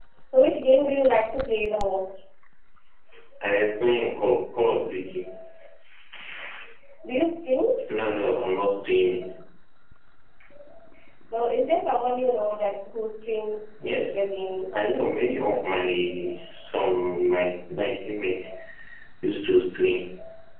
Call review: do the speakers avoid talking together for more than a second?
Yes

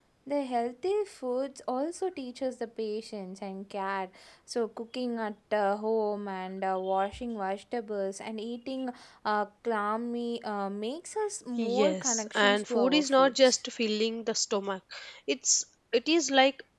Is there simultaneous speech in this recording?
Yes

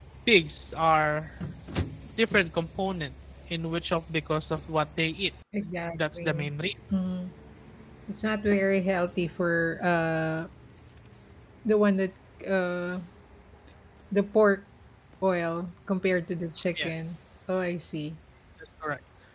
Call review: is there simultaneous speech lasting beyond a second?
No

